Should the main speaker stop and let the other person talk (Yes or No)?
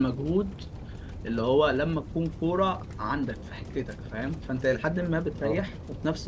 No